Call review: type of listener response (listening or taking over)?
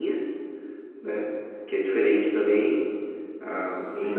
listening